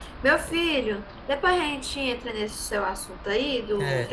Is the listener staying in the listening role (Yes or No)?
No